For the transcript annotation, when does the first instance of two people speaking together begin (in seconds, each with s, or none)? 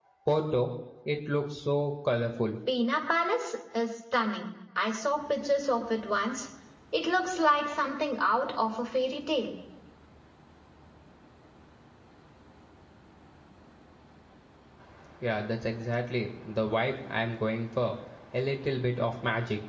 none